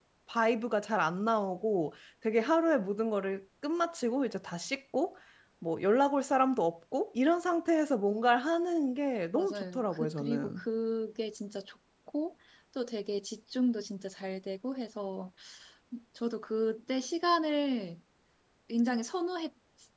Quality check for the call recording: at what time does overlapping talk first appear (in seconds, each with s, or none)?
9.4 s